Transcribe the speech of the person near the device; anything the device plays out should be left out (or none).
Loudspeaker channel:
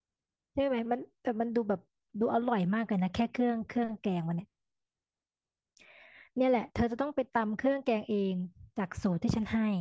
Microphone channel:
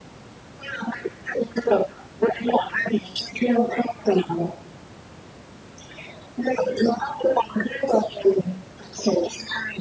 none